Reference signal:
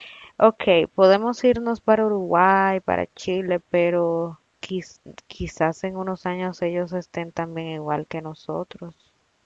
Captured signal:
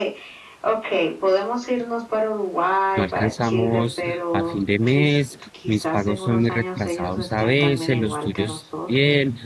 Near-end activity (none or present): present